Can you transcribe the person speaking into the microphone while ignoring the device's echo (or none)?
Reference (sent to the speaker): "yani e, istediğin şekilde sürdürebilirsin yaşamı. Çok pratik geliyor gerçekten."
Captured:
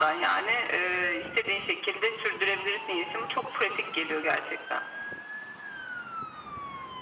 none